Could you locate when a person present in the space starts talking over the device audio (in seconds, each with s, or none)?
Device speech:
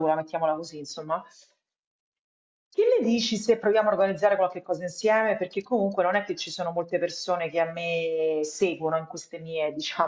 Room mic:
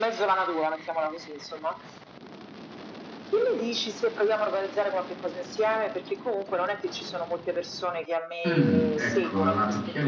8.4 s